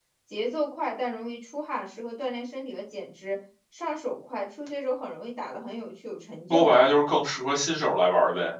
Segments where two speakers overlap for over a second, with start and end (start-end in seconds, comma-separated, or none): none